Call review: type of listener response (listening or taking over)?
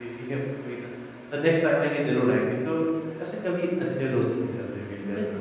taking over